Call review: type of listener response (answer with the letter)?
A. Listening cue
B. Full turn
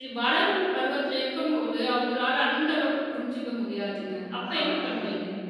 B